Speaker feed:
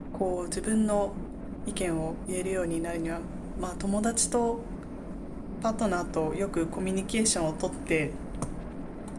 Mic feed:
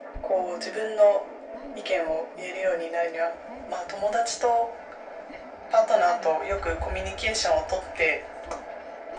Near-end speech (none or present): present